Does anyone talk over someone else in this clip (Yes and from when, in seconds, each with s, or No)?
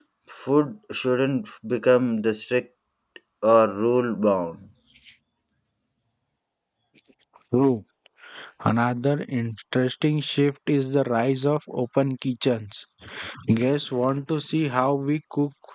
No